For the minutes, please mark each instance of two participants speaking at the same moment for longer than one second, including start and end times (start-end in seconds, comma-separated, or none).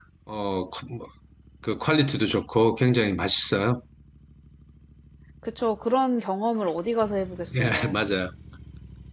none